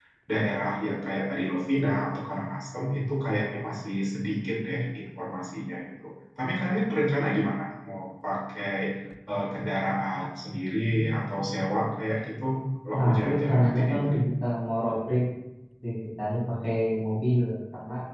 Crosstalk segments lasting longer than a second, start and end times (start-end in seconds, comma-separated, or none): 13.0-14.2